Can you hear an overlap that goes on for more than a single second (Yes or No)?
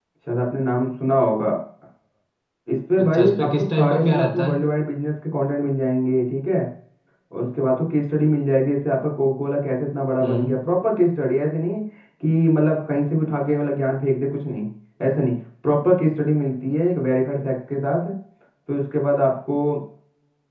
Yes